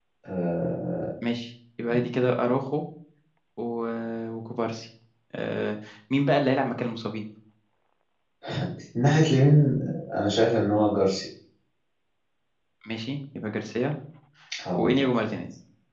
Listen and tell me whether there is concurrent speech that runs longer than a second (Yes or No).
No